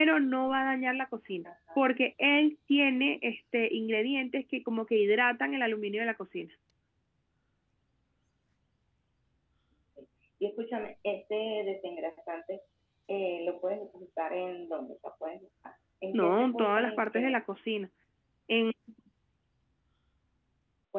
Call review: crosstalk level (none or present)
present